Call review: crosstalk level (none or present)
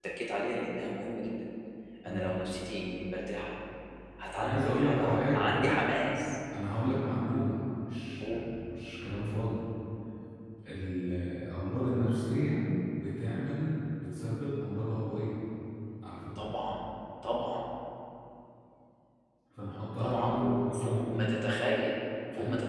present